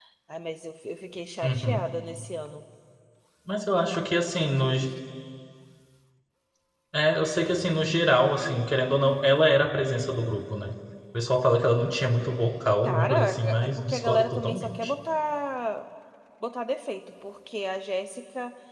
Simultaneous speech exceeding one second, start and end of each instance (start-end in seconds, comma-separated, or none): 12.8-14.9